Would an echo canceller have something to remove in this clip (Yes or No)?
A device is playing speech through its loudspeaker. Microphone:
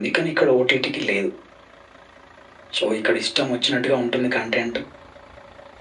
Yes